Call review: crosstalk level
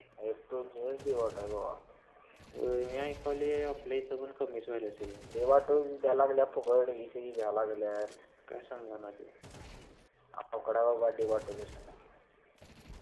none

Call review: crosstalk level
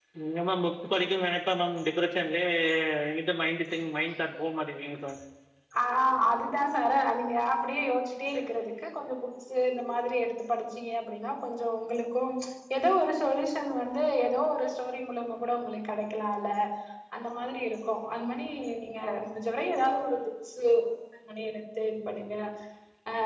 none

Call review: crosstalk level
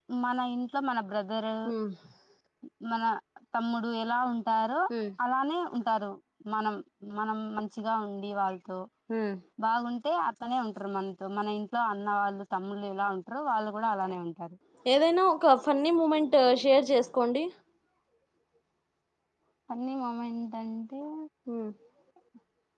none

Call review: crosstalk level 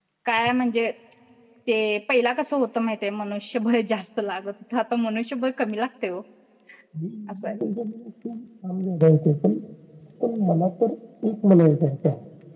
none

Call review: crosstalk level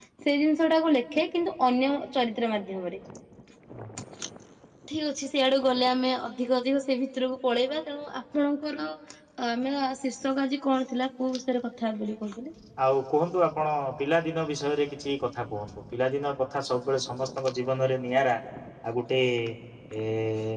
none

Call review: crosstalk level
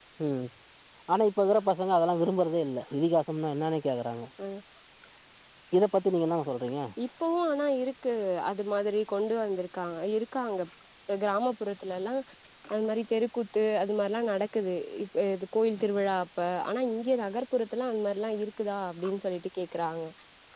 none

